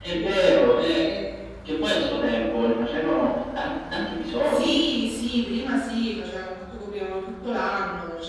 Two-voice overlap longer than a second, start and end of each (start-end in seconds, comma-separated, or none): none